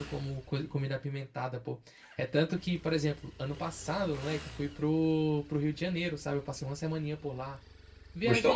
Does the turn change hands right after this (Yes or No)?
No